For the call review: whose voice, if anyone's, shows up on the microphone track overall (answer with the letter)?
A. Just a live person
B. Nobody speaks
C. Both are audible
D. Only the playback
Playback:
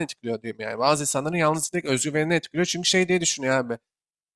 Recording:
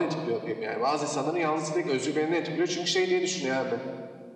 D